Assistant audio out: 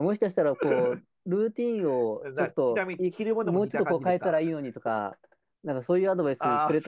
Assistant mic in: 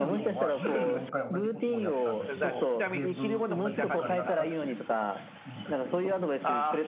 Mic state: both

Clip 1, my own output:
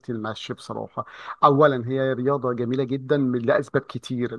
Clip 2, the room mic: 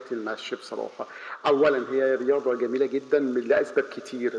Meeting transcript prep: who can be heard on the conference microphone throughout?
echo only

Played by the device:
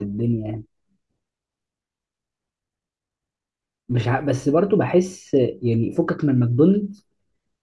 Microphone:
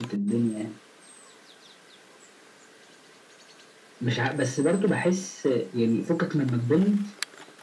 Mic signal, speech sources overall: echo only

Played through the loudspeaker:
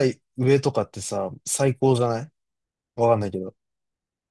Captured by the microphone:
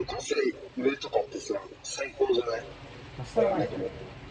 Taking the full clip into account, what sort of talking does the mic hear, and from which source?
both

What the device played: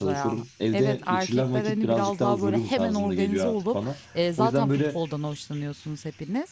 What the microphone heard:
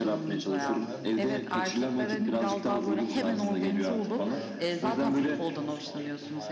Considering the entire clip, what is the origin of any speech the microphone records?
both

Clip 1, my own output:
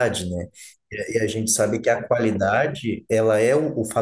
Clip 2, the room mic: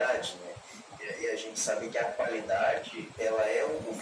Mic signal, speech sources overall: echo only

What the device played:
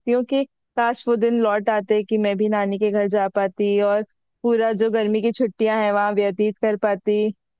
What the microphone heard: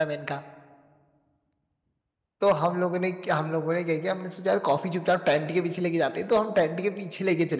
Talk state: user only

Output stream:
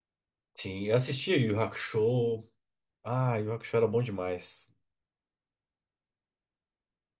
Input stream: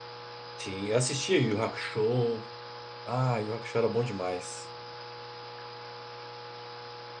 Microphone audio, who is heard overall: echo only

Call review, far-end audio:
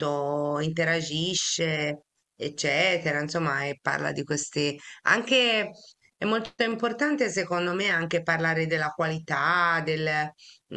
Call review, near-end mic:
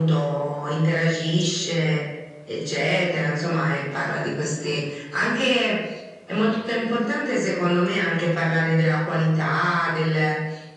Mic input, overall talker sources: echo only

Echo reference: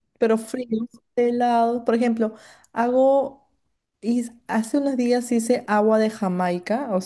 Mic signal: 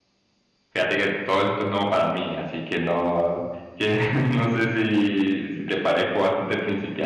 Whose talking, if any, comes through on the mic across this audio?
user only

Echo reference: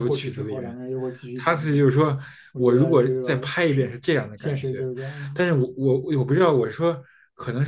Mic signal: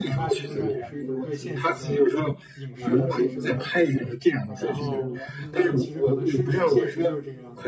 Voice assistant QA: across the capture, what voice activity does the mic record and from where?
both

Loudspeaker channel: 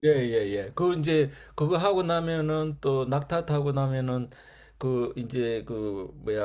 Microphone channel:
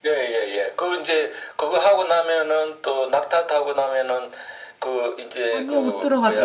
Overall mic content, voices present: both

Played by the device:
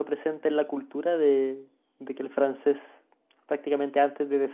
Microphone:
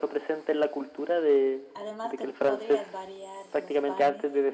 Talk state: both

